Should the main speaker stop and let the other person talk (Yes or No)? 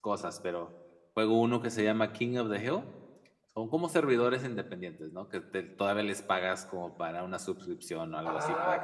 Yes